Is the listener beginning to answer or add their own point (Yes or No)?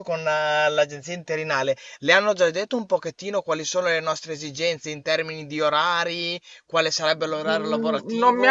Yes